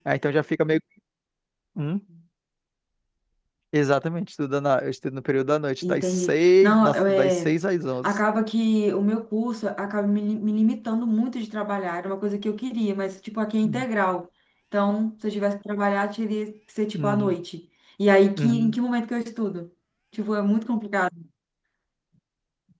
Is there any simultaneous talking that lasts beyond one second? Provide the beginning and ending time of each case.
5.8-7.6

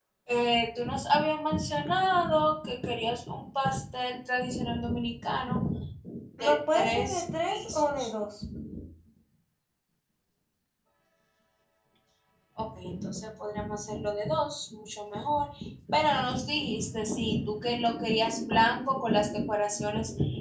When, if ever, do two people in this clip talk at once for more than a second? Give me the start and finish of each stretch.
6.4-8.1

